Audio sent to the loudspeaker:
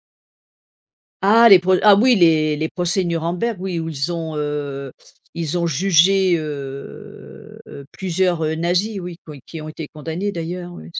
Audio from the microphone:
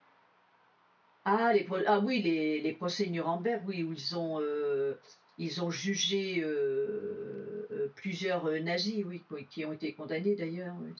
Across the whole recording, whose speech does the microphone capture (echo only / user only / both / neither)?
echo only